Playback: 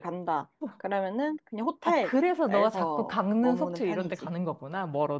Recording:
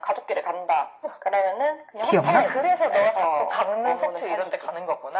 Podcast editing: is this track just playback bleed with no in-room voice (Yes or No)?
No